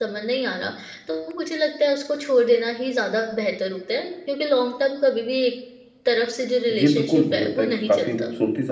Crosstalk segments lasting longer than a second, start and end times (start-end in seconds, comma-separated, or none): 6.7-8.2